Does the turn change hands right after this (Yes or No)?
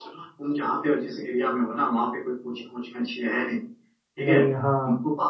No